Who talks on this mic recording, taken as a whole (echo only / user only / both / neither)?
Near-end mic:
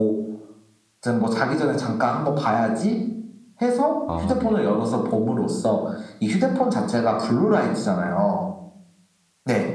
both